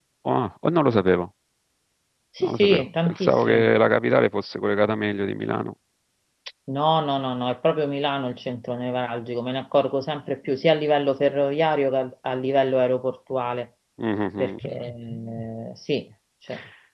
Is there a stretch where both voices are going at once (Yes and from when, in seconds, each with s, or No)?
Yes, from 2.4 s